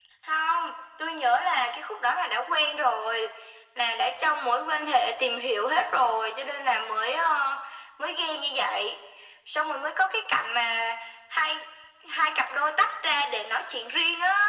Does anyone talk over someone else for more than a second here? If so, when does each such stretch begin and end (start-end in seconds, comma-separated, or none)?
none